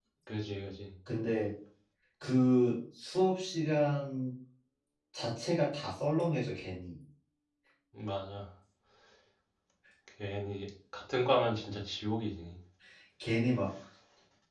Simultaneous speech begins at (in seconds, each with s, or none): none